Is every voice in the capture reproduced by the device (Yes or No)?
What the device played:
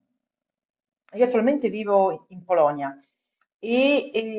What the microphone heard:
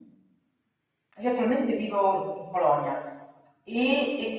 Yes